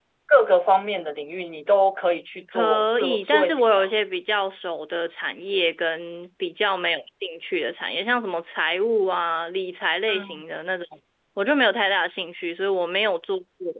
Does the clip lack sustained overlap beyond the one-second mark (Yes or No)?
No